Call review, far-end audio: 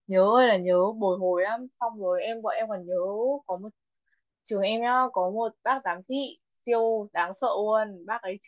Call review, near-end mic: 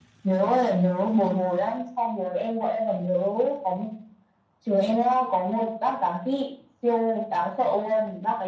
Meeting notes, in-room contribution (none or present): none